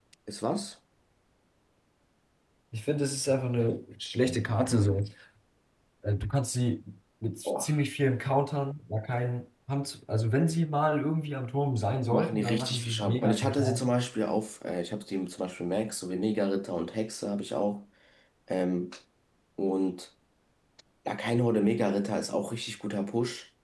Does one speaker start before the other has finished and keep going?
Yes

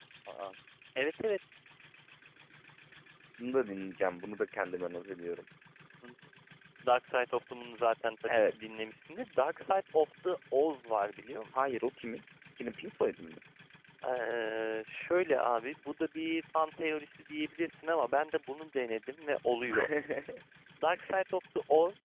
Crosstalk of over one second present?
No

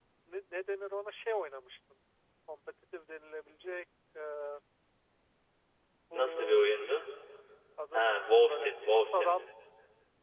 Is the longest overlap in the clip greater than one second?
Yes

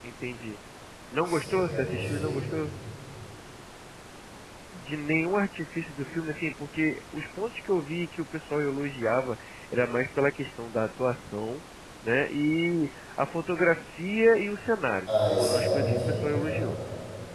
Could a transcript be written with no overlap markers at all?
No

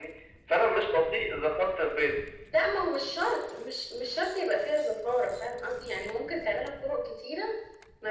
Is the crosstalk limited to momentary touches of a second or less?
Yes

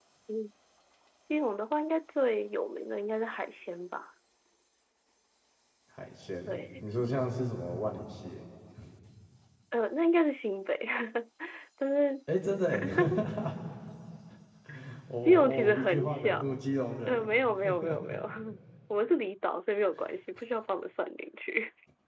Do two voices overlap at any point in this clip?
Yes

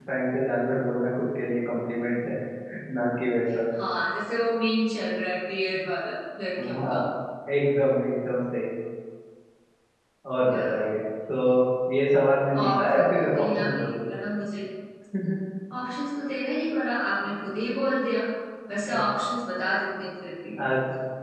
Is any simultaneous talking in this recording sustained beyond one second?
Yes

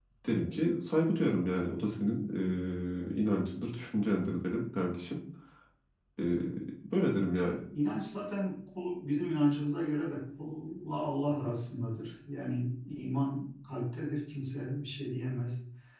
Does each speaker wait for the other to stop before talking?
Yes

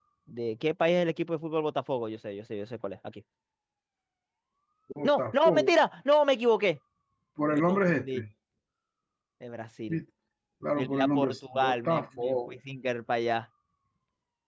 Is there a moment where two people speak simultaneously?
Yes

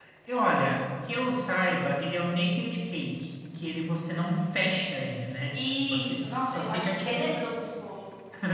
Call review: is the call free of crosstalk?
No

